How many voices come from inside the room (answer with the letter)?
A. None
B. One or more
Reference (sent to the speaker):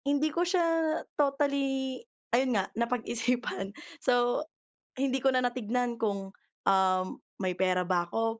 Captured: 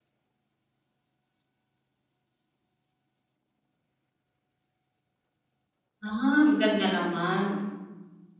B